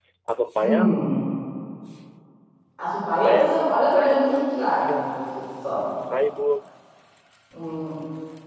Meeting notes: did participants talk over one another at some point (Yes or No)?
Yes